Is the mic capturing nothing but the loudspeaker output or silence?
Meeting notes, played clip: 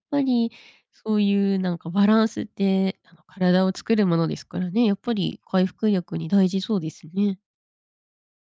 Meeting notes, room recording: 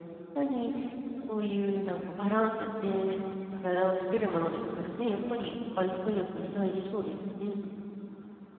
Yes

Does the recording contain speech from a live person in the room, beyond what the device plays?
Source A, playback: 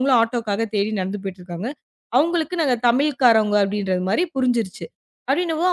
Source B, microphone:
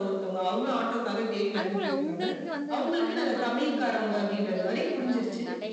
Yes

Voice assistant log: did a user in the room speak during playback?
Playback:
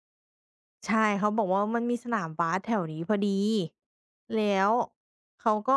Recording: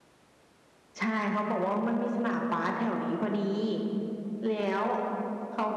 No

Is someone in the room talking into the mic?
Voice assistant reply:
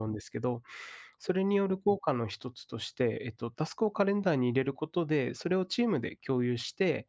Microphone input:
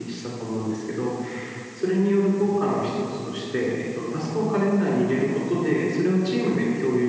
No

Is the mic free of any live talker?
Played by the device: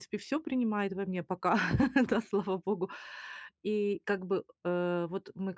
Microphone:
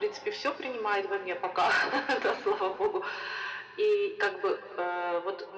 Yes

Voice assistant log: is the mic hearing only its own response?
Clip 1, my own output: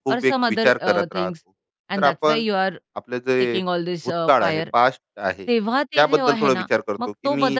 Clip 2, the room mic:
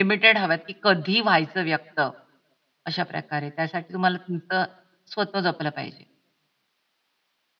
No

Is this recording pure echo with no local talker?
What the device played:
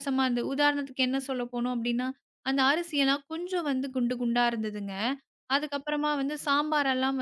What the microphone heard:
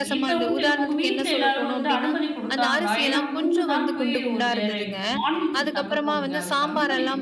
No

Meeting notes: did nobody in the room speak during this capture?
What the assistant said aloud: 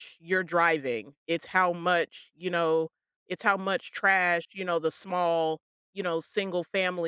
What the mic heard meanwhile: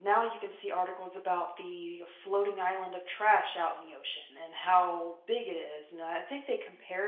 No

